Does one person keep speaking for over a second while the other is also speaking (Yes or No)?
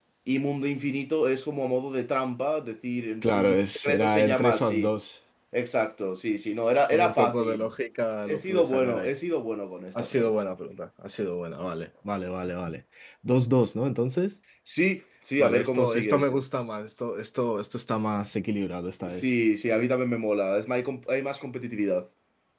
Yes